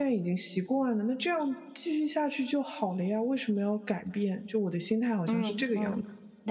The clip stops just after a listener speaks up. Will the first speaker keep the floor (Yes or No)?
No